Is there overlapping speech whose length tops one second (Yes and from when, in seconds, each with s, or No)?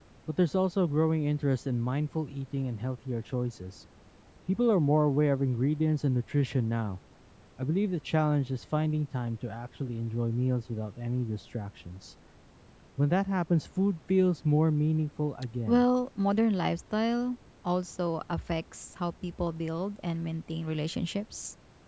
No